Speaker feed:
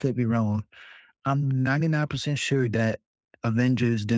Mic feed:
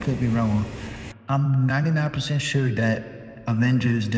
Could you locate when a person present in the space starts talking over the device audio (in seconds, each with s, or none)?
none